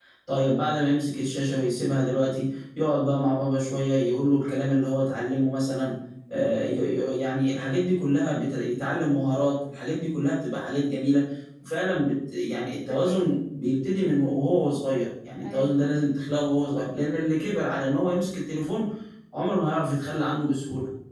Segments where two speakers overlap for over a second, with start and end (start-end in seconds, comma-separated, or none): none